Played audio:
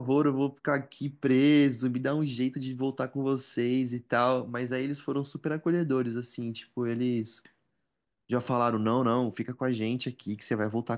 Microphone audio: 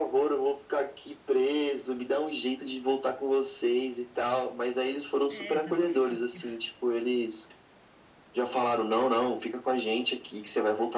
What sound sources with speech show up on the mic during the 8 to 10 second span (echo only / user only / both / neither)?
echo only